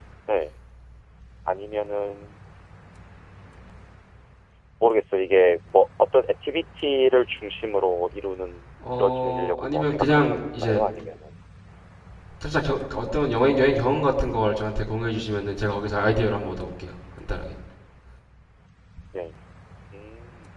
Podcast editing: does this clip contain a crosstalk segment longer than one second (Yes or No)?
Yes